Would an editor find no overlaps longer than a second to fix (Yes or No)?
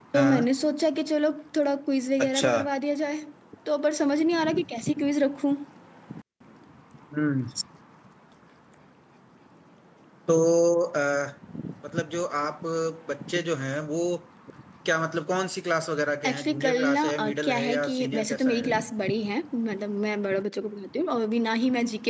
No